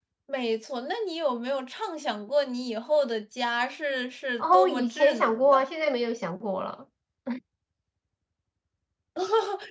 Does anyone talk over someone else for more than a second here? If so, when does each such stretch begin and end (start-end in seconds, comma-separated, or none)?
4.4-5.7